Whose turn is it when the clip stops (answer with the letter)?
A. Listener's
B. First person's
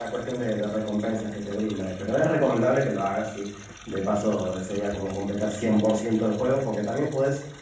B